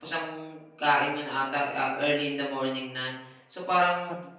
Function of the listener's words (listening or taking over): listening